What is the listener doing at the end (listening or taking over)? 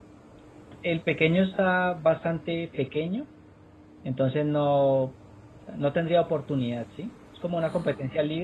listening